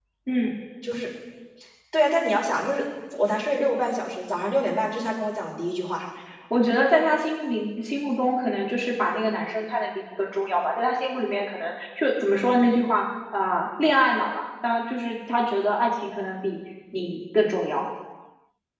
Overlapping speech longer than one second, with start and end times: none

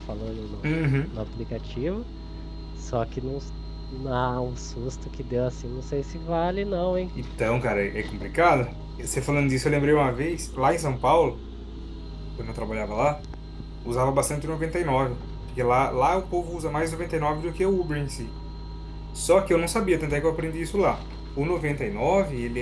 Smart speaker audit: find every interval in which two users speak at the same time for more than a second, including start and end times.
none

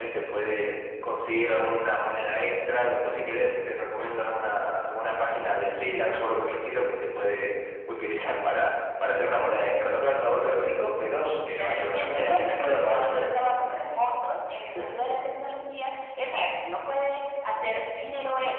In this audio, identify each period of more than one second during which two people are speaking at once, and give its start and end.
11.2-13.4

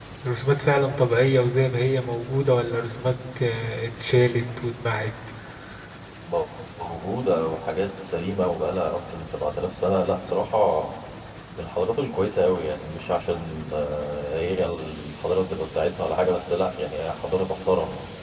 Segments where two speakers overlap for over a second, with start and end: none

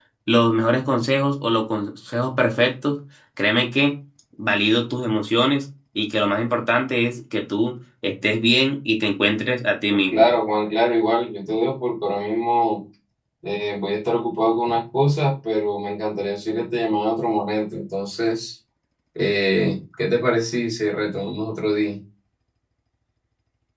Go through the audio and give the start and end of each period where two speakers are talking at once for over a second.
none

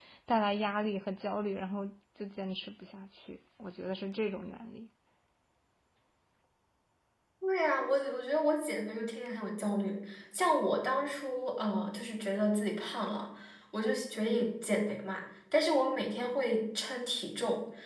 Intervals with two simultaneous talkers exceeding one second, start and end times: none

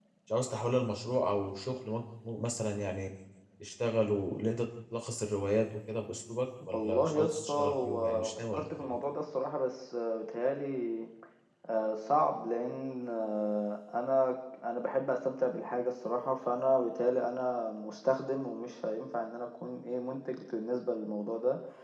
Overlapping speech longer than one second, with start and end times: 6.7-9.0

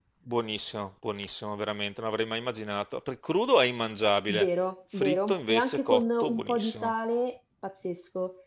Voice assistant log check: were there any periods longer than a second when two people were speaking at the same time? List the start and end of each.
5.0-6.9

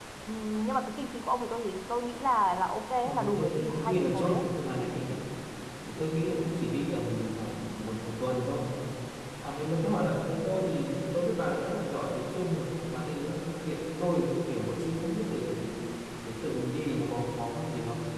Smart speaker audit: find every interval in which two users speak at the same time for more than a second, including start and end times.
3.0-4.4

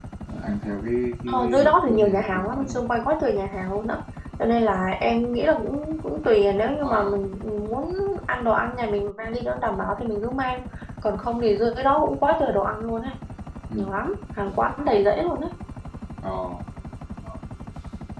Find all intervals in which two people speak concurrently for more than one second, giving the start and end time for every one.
1.3-2.8

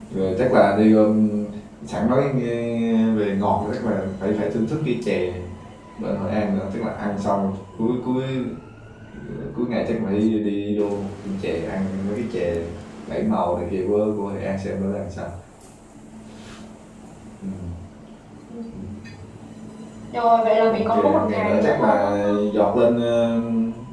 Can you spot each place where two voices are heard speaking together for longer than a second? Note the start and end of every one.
20.6-22.4

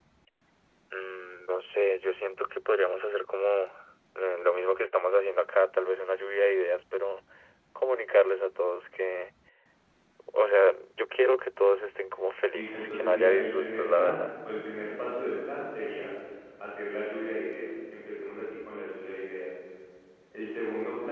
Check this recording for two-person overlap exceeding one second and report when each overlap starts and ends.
12.5-14.3

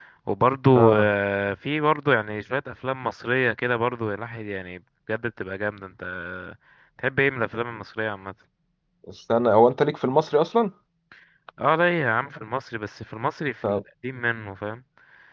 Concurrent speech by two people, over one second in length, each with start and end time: none

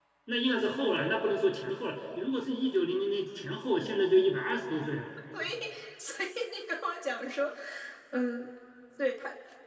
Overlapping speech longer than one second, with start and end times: none

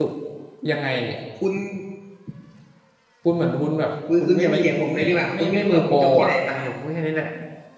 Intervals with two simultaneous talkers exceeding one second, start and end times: 4.9-6.6

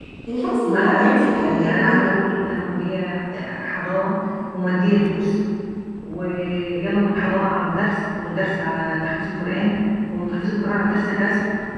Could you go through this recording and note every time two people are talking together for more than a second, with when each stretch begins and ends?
0.7-2.1

